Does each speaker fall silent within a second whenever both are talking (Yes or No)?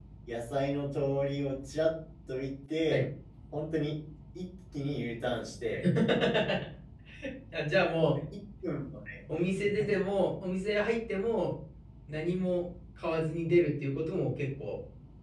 Yes